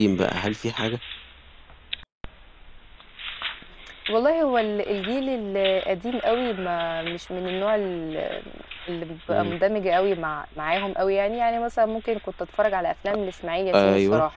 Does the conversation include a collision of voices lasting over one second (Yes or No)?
No